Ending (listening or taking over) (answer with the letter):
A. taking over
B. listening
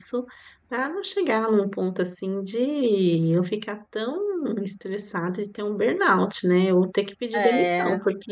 B